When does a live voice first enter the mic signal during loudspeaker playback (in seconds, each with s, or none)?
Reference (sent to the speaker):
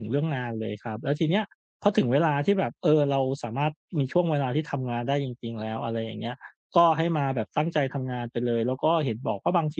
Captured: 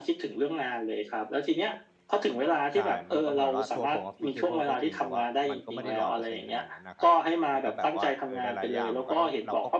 2.7 s